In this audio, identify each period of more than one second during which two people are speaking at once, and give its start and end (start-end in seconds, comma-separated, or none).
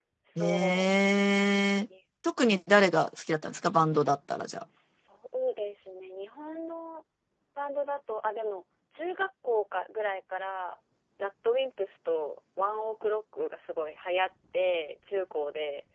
none